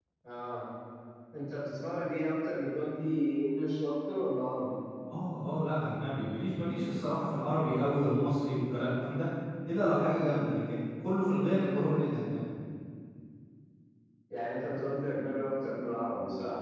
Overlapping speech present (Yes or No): No